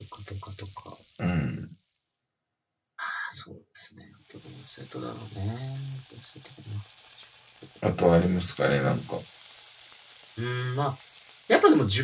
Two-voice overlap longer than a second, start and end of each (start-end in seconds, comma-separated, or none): none